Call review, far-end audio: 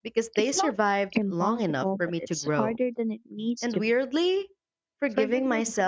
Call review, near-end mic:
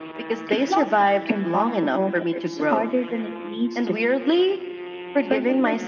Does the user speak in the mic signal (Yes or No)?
No